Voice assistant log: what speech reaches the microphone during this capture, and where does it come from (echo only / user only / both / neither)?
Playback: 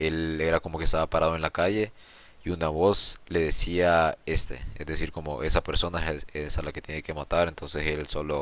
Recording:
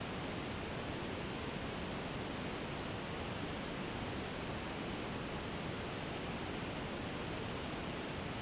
neither